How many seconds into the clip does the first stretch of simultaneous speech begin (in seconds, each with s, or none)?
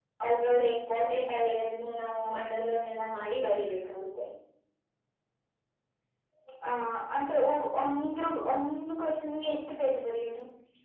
none